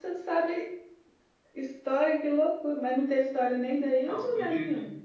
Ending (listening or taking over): taking over